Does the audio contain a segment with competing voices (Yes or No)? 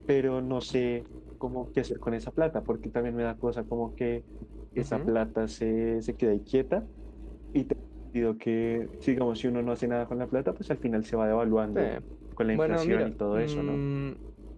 Yes